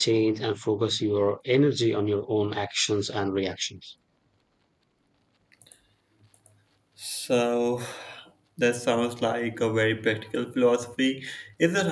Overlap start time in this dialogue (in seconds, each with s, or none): none